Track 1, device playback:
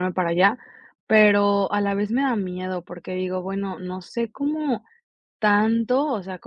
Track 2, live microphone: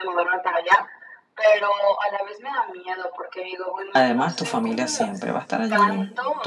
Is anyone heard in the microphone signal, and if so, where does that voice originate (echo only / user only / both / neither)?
both